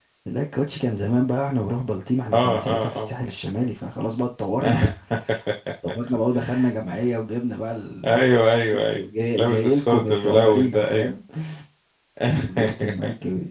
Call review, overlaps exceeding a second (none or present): present